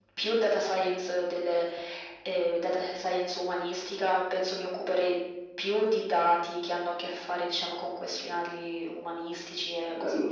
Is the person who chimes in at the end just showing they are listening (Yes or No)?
No